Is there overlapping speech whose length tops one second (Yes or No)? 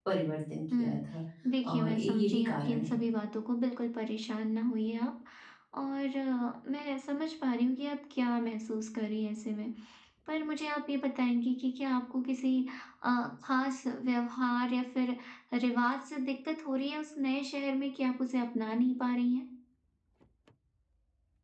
Yes